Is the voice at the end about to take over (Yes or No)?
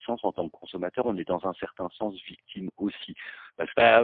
Yes